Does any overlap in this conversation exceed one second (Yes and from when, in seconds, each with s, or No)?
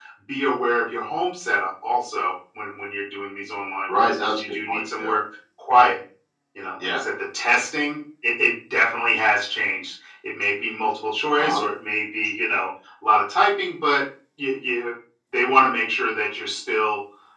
Yes, from 3.9 s